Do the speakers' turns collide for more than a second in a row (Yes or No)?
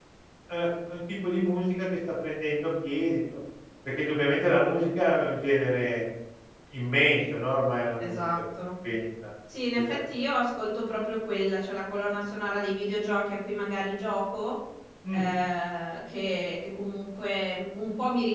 No